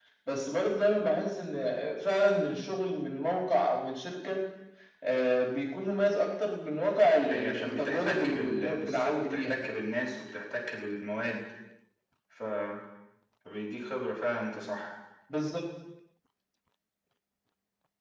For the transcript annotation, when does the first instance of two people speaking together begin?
7 s

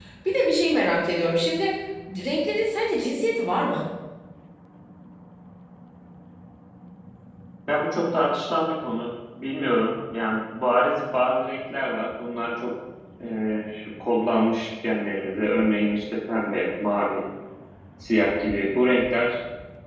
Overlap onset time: none

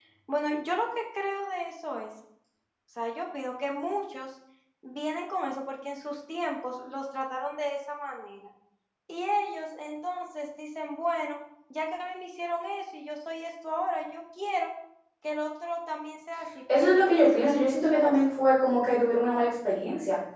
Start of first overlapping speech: 17 s

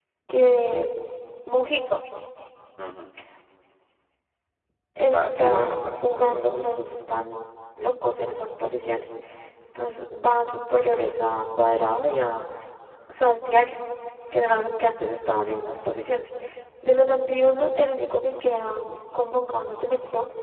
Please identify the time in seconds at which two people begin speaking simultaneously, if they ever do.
5 s

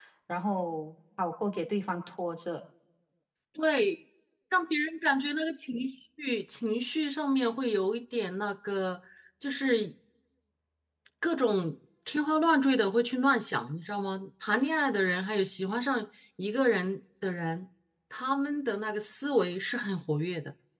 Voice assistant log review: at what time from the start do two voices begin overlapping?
none

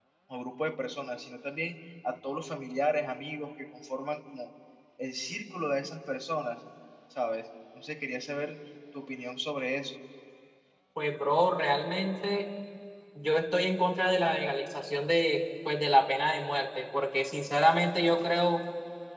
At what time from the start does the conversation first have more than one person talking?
none

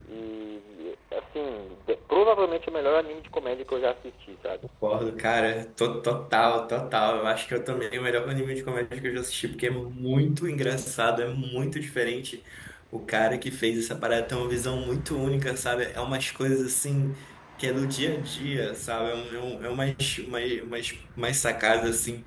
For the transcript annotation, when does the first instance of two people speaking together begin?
none

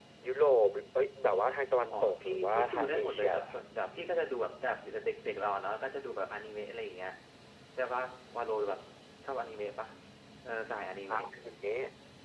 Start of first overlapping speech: 2 s

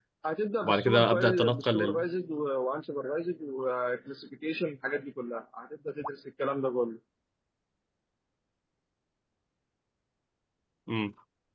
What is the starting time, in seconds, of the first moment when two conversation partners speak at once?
1 s

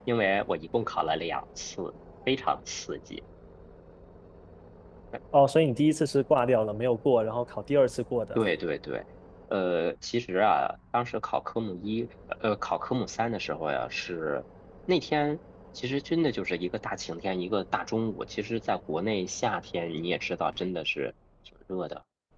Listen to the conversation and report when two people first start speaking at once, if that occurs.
none

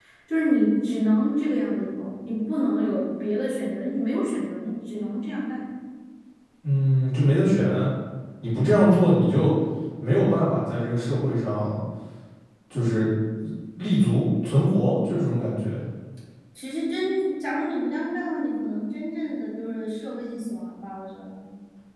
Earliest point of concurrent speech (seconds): none

